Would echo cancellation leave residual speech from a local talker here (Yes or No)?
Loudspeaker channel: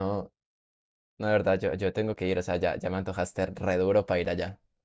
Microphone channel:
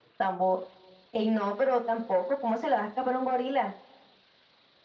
Yes